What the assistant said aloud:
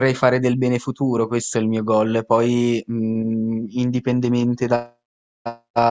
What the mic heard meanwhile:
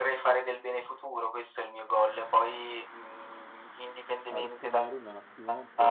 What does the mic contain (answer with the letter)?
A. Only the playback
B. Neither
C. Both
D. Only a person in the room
C